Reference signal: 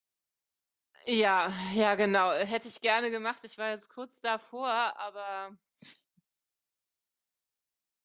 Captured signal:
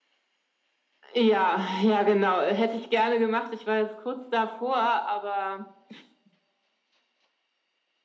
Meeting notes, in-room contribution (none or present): none